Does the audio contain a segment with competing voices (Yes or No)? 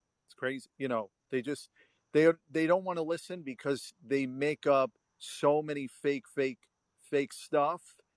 No